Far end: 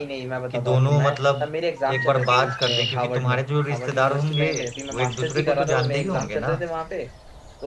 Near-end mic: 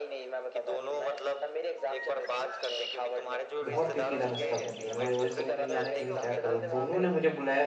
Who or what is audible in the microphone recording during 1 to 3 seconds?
echo only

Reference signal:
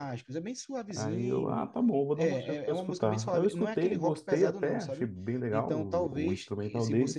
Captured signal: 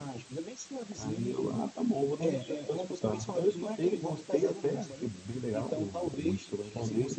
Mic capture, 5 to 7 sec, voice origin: echo only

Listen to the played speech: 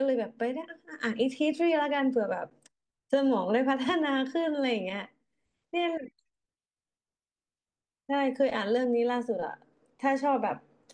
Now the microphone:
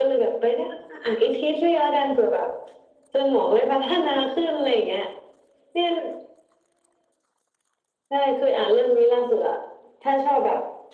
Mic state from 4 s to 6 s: echo only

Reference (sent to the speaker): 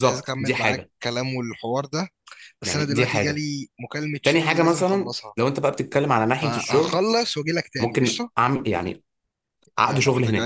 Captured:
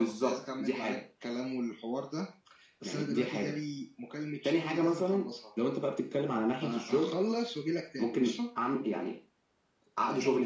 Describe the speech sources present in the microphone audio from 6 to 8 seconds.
echo only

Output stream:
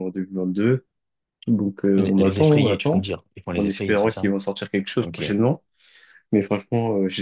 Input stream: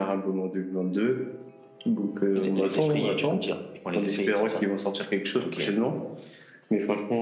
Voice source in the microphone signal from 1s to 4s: echo only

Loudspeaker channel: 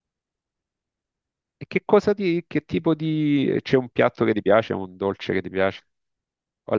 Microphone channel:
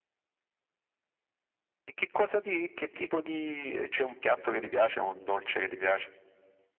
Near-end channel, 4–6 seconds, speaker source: echo only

